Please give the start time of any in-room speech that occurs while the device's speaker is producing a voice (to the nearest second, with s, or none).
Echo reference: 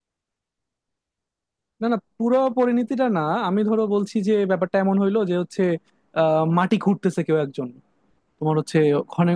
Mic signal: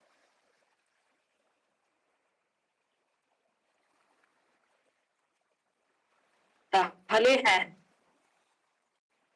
7 s